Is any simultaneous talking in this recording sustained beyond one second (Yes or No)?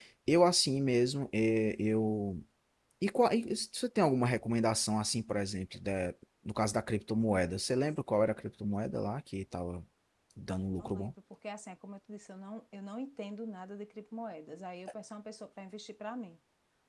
No